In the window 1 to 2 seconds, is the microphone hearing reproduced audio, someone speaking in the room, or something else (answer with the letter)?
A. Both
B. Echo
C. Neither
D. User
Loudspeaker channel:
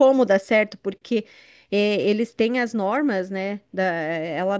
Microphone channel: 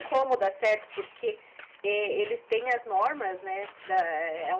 B